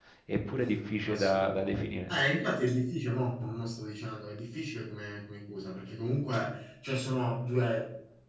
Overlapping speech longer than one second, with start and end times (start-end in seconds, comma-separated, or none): none